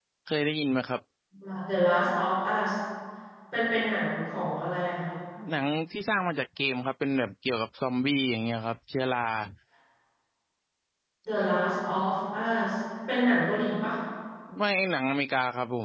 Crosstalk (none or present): none